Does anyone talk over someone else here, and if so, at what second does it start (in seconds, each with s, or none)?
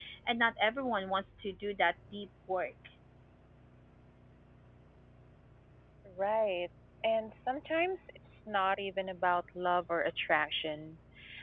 none